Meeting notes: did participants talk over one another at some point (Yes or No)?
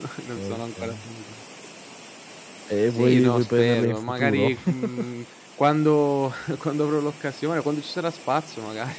Yes